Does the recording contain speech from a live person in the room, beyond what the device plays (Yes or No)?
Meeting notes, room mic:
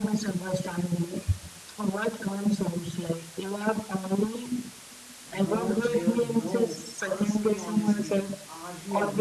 Yes